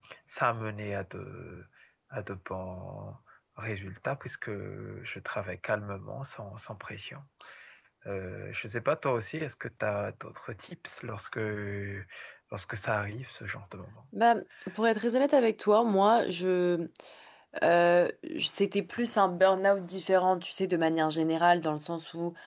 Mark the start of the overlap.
none

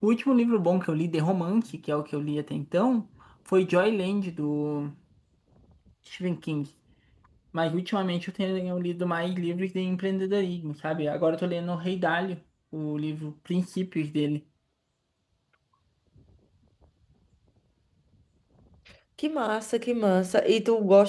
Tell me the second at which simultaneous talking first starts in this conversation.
none

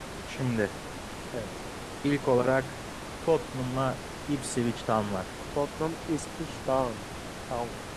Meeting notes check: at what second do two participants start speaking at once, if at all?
none

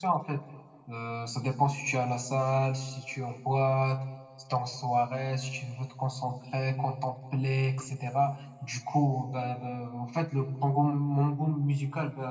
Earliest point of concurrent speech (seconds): none

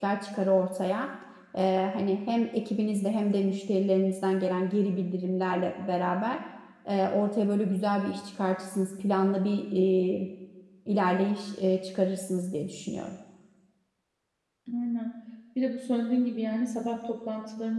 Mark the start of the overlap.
none

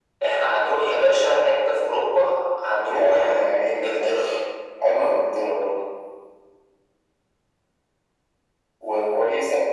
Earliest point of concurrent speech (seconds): 2.9 s

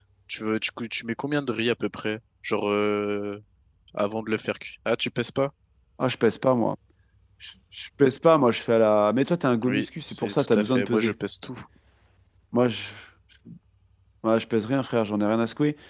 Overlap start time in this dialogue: 9.6 s

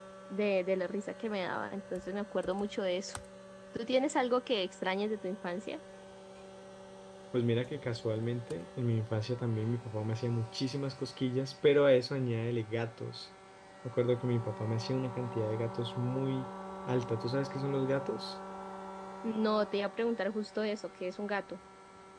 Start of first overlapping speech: none

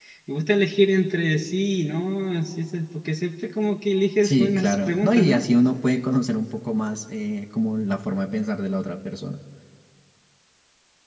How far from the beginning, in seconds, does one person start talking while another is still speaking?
4.2 s

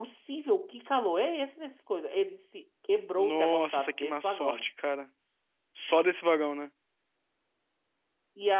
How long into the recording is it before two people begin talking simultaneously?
3.2 s

